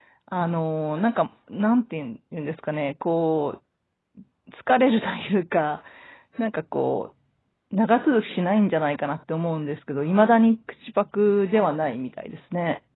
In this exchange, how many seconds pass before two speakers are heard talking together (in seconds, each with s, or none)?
none